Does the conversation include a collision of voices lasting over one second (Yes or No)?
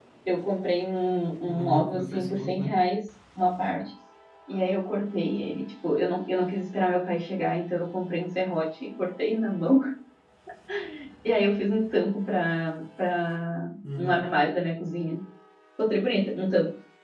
Yes